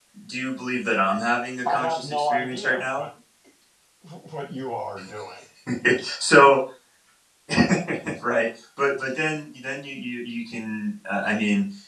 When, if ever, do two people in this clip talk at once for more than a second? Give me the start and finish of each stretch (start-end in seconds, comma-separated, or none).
1.6-3.0